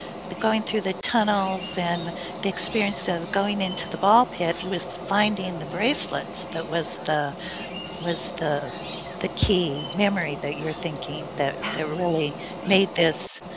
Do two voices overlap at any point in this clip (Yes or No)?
Yes